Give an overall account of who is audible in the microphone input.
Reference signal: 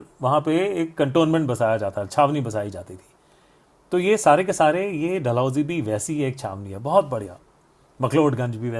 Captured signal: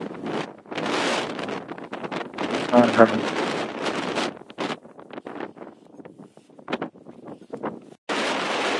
user only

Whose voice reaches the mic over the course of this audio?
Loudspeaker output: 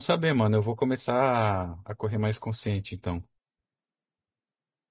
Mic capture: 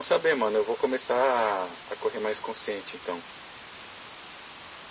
echo only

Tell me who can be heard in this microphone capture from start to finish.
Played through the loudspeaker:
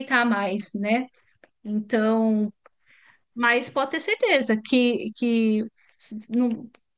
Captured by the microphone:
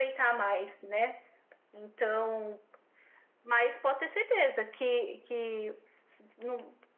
echo only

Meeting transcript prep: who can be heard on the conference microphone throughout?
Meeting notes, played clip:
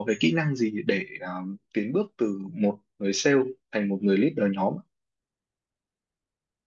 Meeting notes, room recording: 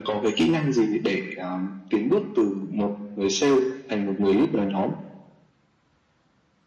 echo only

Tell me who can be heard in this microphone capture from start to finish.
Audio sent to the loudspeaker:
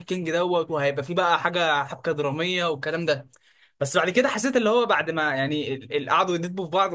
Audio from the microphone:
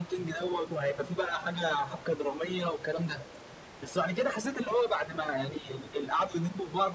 echo only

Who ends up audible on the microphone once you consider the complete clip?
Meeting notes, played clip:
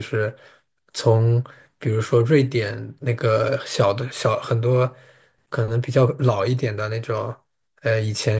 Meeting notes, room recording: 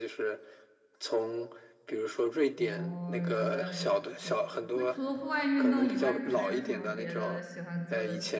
both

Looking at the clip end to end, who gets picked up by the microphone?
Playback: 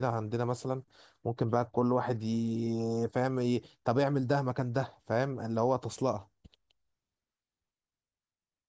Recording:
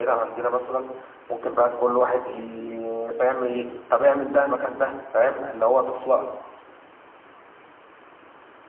echo only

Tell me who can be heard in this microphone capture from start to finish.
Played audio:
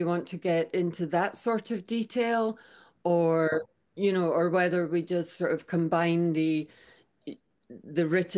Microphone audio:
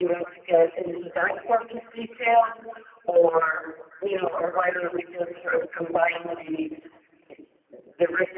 echo only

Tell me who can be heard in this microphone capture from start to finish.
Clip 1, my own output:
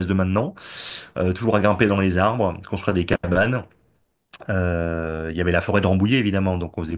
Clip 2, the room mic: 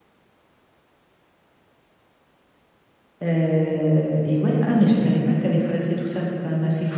user only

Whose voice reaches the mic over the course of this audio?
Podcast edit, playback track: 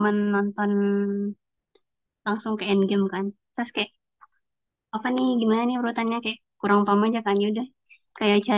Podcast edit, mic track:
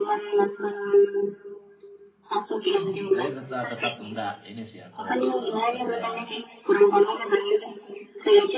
both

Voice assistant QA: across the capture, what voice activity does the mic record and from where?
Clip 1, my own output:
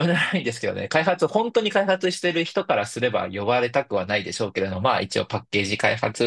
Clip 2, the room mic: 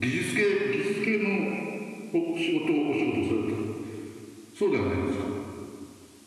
user only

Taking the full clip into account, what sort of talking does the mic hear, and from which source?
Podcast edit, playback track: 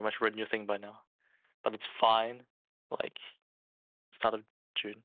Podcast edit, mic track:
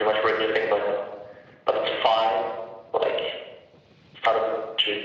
echo only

